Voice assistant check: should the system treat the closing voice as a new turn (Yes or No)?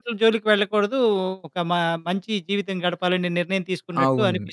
Yes